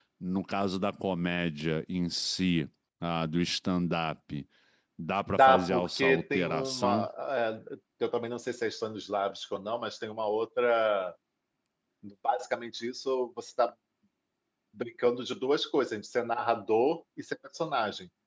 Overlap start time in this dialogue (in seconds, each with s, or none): 5.3 s